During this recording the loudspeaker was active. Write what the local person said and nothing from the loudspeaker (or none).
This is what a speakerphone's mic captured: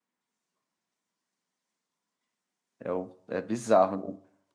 É, o- é bizarro, né?